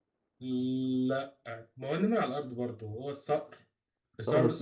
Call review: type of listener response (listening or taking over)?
listening